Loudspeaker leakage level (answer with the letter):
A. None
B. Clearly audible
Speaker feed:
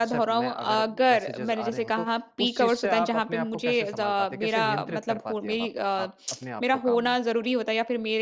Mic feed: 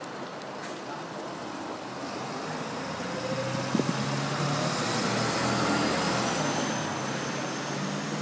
A